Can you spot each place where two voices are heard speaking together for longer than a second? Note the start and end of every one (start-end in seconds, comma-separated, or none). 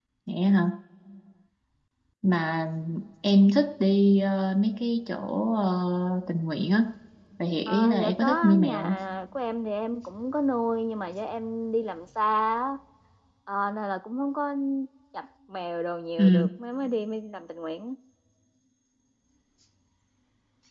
7.7-9.0